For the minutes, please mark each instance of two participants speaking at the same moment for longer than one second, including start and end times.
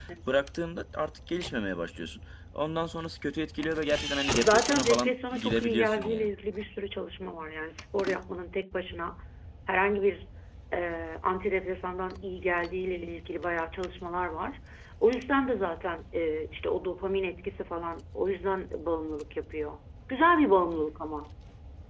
4.4-6.3

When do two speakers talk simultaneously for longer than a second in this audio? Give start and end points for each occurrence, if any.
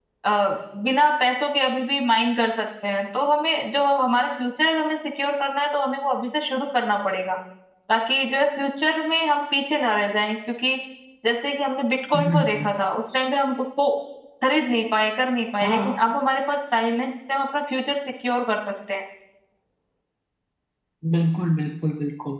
none

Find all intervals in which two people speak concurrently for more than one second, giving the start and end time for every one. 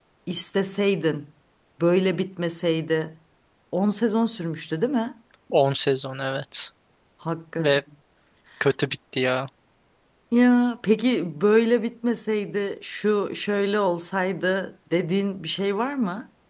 none

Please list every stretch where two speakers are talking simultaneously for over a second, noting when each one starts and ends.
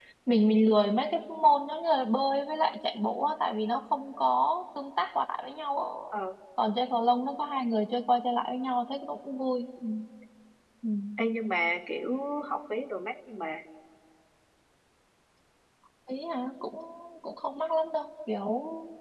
none

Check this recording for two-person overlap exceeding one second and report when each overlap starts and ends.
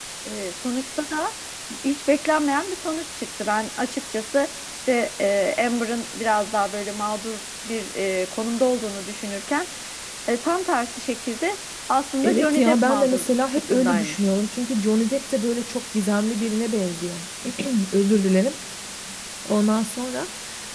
12.2-14.3

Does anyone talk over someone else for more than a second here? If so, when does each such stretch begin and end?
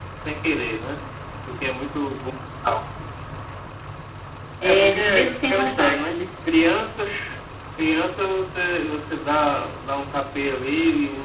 4.6-6.2

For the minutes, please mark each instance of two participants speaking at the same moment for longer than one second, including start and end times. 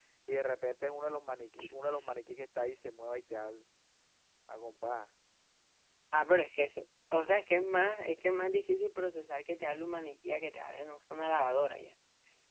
none

